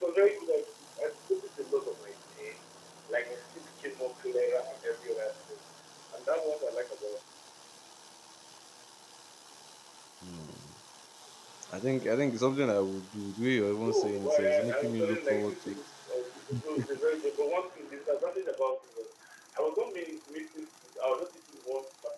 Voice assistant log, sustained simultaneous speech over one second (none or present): present